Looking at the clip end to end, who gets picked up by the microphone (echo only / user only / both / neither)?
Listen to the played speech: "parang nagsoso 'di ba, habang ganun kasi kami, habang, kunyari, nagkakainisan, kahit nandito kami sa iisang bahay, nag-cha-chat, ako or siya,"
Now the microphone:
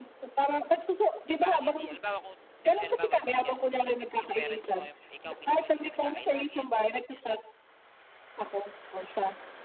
both